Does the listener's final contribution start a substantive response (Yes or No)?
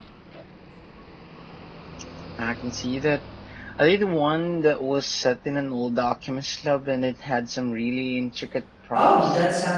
Yes